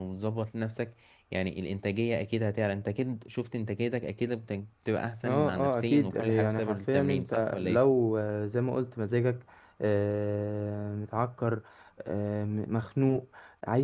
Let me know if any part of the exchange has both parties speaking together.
Yes, from 5.2 s

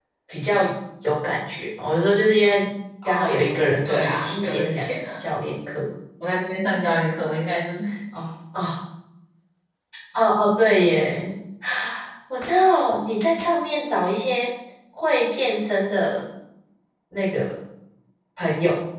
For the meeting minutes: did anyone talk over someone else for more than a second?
Yes, from 3.0 s

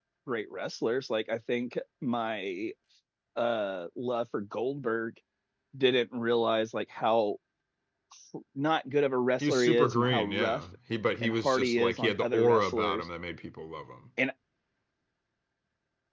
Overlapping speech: Yes, from 9.4 s

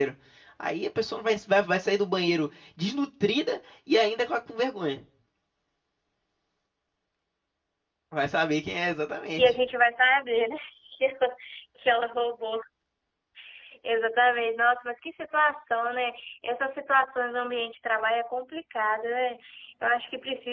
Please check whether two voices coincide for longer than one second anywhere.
No

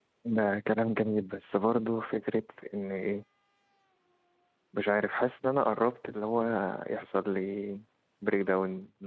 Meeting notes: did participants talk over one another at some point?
No

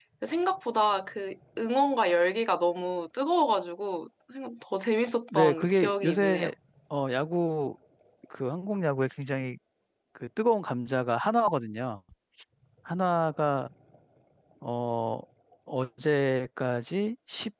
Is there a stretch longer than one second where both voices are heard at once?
Yes, from 5.3 s

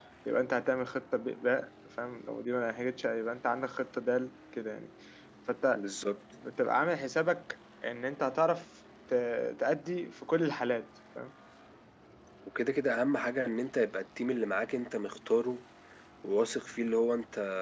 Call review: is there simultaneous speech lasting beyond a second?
No

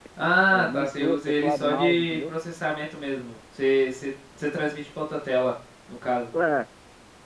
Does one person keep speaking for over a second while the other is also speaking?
Yes, from 0.5 s

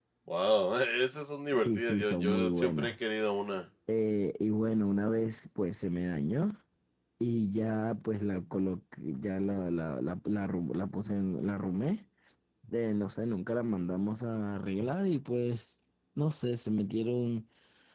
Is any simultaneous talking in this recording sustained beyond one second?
Yes, from 1.5 s

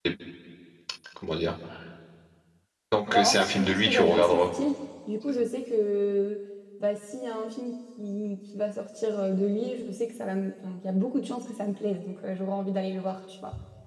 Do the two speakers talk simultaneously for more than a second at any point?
Yes, from 3.1 s

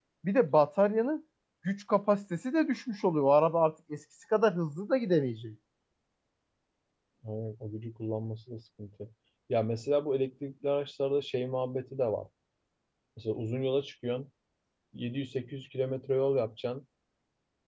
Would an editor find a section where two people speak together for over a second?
No

